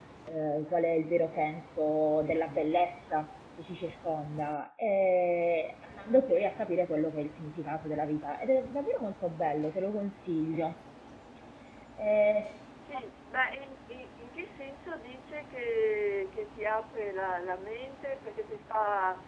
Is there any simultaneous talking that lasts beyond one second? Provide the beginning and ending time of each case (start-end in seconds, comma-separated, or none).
none